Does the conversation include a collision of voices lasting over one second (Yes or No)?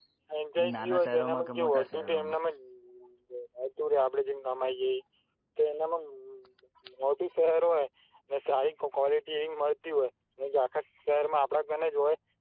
Yes